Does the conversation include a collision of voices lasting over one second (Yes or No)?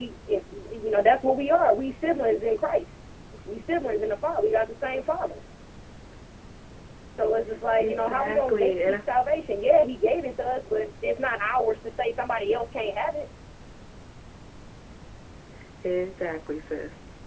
Yes